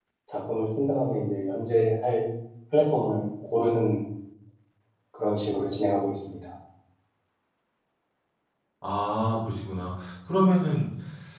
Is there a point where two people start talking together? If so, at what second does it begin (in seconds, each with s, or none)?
none